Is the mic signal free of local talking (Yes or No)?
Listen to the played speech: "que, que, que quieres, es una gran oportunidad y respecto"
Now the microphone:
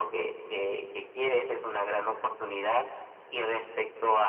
Yes